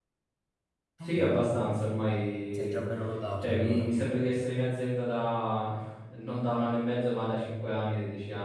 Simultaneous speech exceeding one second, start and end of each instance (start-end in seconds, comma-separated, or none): none